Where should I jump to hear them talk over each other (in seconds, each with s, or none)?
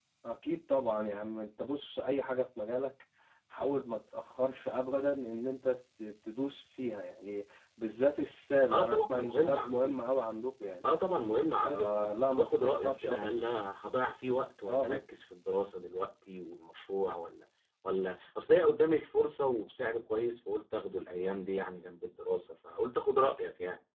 8.7 s